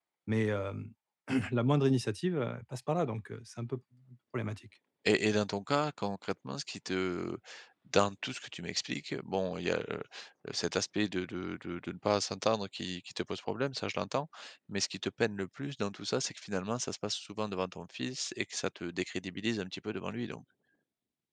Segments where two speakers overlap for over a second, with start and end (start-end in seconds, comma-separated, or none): none